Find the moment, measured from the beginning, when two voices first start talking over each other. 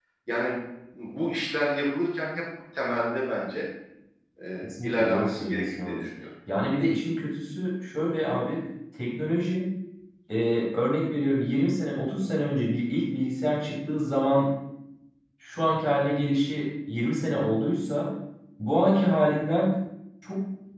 4.6 s

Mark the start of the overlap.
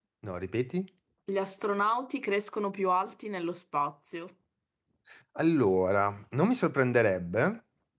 none

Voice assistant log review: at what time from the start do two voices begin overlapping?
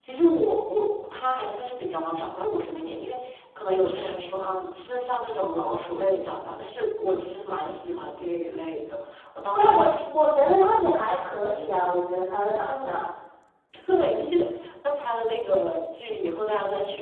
9.6 s

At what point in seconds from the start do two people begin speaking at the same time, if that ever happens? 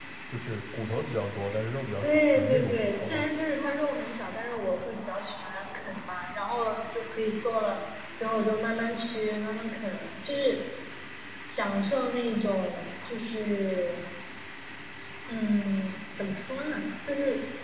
2.0 s

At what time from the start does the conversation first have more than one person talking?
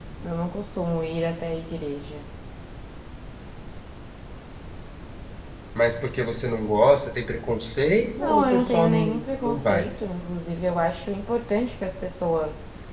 8.2 s

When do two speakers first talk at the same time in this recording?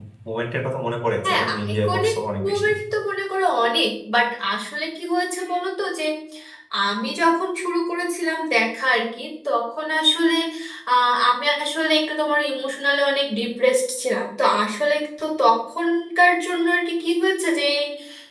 1.2 s

